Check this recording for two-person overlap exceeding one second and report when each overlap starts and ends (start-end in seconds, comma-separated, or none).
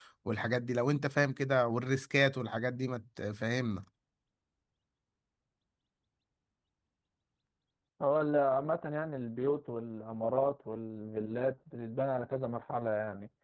none